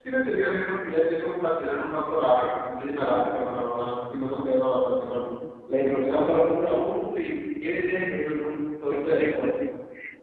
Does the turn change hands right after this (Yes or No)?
Yes